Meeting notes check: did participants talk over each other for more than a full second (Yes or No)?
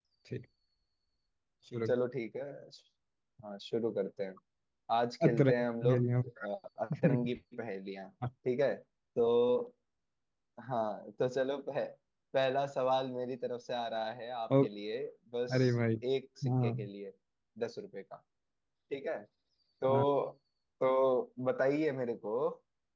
No